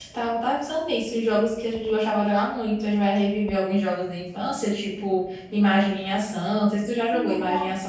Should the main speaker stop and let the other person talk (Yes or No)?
Yes